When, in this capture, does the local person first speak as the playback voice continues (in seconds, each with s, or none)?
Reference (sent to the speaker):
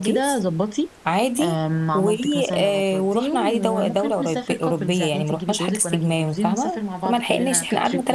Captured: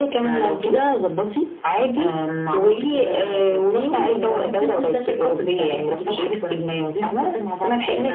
none